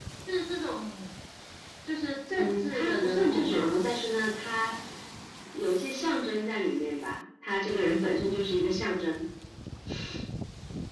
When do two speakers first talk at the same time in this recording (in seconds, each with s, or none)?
2.4 s